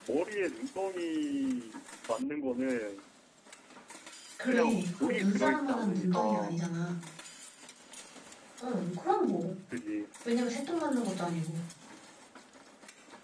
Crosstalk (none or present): present